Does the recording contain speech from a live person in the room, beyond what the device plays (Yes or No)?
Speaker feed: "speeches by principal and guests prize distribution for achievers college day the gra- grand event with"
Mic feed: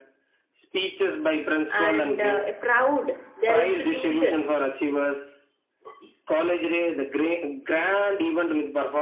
Yes